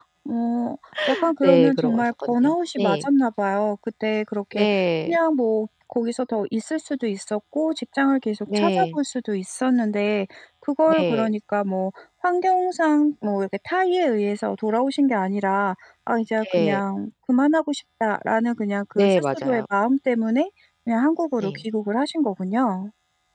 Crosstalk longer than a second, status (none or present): present